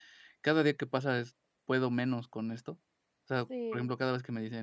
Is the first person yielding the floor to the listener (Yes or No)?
No